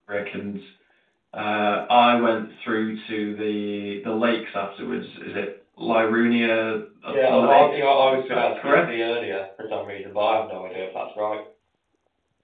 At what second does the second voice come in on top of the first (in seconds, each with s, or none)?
7.1 s